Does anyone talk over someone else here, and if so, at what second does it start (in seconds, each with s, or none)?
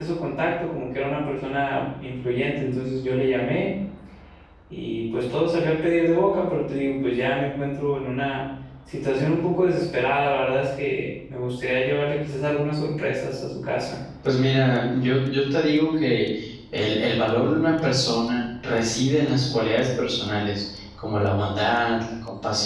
none